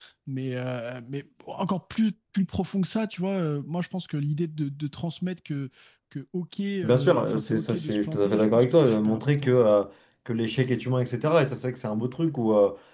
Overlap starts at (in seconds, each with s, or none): 6.8 s